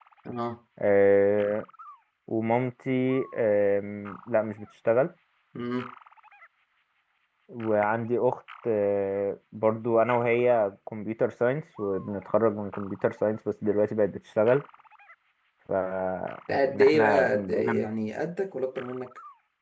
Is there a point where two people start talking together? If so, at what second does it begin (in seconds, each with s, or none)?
16.5 s